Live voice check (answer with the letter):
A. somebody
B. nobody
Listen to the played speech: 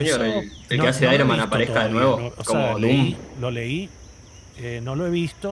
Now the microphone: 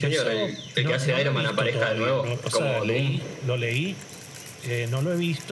B